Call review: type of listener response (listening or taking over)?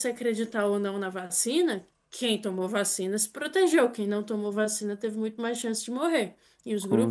listening